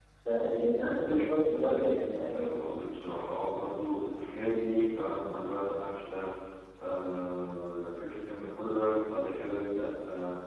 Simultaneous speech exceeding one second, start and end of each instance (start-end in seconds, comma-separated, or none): none